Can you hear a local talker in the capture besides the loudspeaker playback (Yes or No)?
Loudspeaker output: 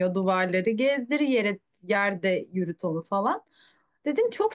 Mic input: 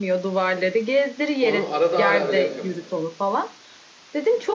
Yes